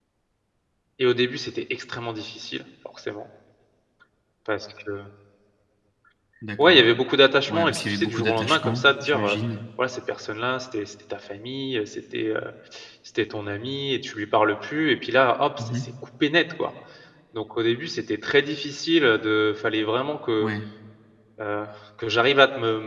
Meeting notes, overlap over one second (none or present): present